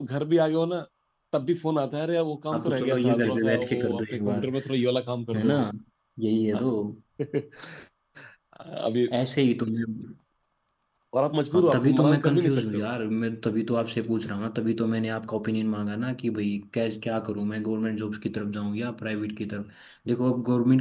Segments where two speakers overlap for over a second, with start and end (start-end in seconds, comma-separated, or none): 2.5-4.4, 11.5-12.9